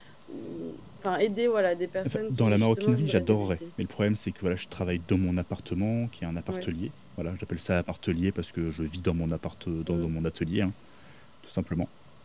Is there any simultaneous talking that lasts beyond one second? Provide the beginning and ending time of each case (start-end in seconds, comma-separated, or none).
2.0-3.5